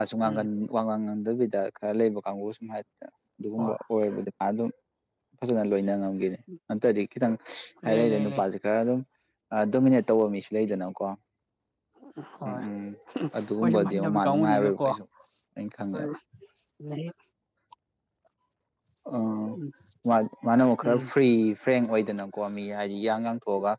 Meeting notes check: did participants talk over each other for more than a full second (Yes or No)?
Yes